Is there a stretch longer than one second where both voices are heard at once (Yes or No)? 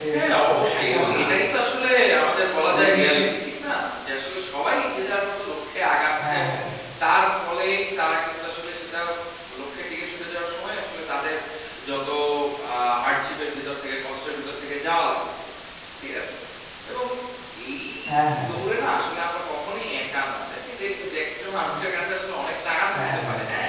Yes